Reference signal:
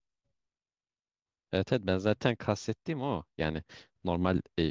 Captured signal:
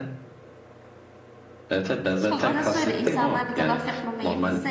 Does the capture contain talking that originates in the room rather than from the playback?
Yes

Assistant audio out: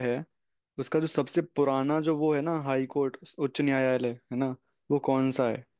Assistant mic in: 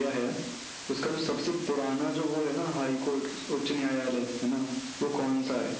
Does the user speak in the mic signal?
No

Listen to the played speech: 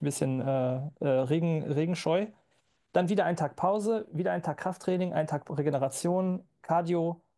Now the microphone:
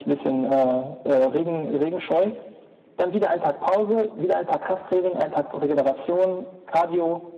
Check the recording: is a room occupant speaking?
No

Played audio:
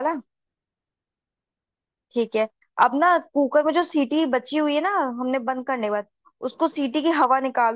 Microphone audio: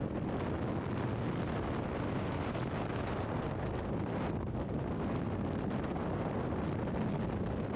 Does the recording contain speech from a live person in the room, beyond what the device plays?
No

